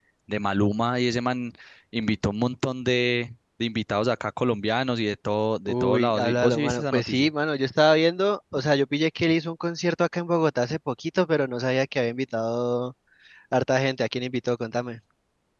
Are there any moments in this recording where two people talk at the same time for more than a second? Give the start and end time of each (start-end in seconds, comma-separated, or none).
5.7-7.3